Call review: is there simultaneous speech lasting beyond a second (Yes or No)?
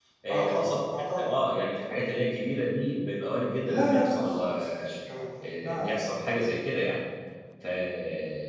Yes